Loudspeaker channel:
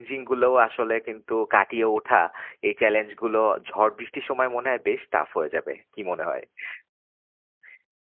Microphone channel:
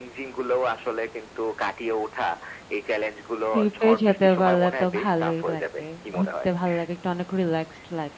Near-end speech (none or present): present